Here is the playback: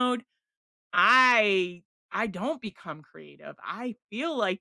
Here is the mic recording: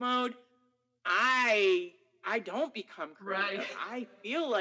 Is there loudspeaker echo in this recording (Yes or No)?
Yes